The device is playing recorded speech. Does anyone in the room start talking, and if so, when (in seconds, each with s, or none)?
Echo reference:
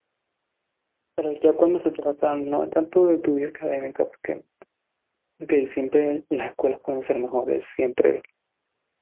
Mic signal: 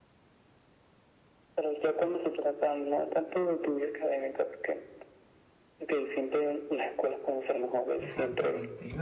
8.0 s